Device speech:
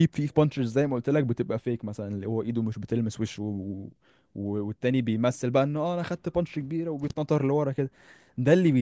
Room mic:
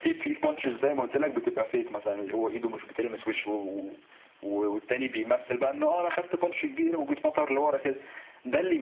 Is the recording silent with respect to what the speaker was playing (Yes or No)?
No